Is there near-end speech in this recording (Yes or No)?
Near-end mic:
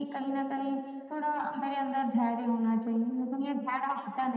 No